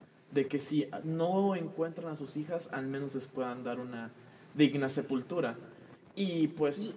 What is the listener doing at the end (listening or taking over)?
taking over